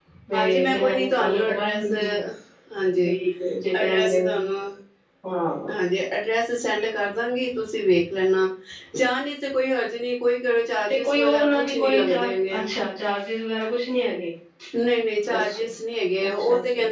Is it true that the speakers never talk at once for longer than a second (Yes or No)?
No